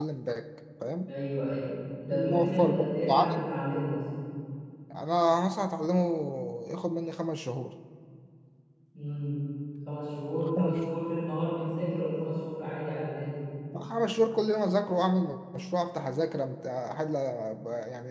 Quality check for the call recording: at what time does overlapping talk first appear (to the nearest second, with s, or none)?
2 s